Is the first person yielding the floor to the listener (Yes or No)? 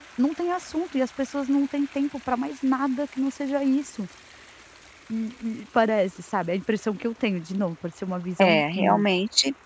Yes